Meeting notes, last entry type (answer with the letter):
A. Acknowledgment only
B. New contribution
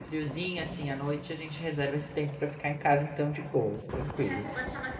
B